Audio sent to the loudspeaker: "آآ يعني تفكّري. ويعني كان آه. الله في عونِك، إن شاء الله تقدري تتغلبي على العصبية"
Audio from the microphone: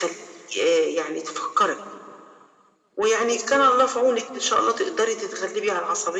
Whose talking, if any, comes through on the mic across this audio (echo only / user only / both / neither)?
echo only